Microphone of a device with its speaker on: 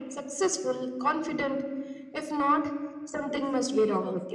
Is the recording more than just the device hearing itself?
Yes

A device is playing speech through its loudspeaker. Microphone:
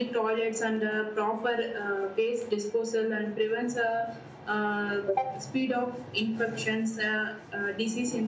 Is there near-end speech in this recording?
No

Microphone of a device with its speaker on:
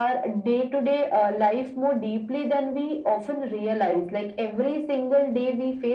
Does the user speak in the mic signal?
No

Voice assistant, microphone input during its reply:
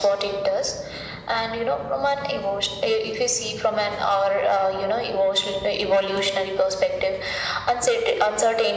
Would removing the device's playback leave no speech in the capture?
Yes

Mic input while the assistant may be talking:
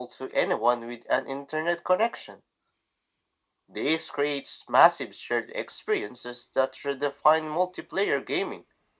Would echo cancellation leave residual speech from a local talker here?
No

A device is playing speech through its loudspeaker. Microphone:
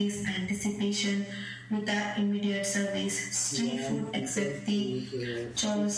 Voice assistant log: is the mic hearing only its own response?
No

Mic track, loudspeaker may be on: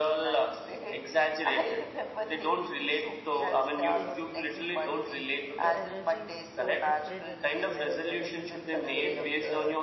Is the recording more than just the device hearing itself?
Yes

